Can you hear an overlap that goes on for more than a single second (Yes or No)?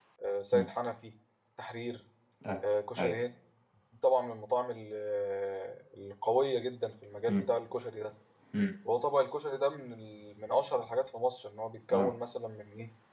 No